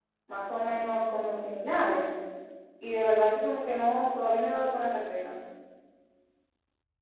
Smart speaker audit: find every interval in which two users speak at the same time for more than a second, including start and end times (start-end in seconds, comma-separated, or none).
none